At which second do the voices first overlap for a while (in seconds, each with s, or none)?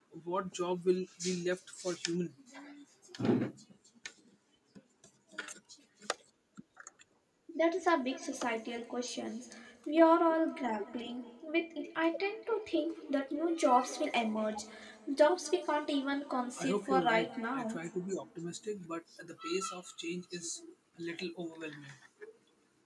16.6 s